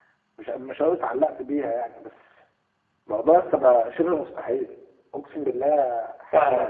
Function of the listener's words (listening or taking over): taking over